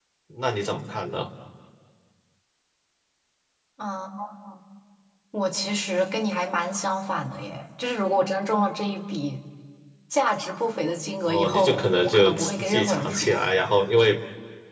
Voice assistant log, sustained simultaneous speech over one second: present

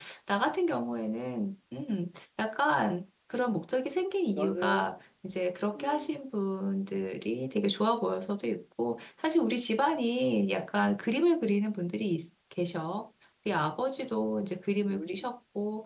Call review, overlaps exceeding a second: none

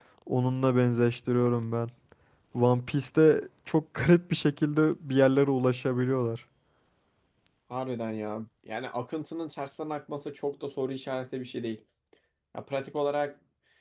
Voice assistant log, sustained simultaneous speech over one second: none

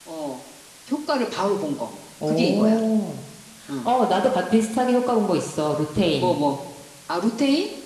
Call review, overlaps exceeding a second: none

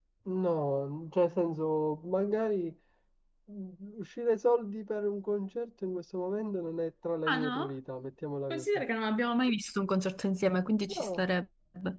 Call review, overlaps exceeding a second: none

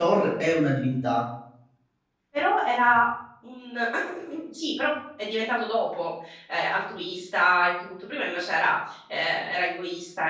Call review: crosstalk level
none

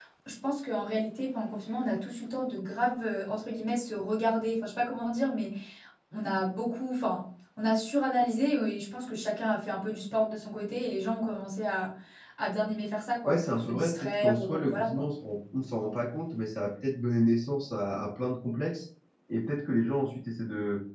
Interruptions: present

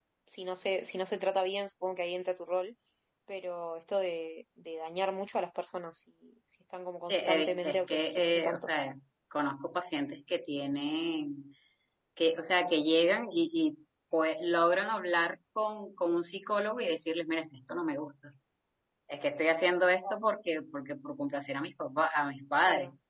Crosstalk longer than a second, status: present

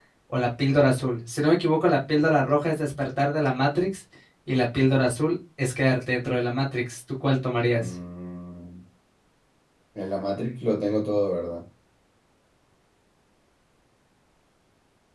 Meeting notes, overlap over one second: none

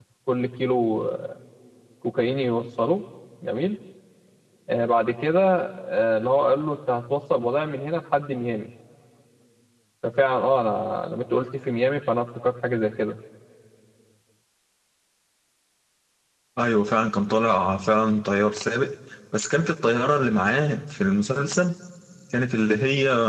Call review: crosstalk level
none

